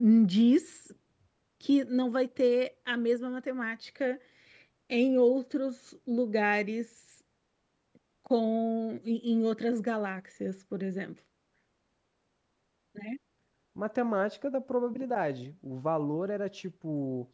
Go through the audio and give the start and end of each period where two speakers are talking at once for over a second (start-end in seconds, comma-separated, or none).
none